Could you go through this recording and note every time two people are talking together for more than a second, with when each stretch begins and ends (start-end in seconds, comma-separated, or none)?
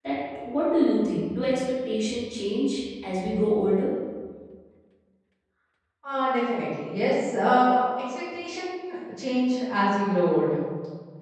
none